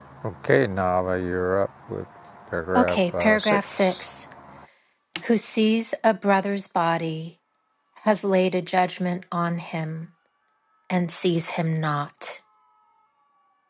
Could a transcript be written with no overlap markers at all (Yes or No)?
No